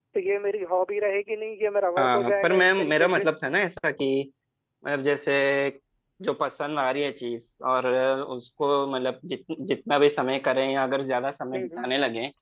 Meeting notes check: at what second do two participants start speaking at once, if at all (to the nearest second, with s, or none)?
2 s